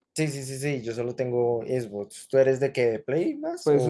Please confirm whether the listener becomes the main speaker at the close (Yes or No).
Yes